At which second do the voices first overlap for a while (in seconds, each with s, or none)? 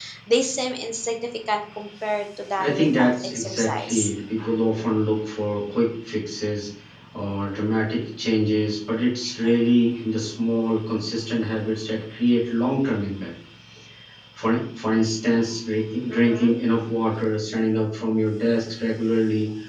2.6 s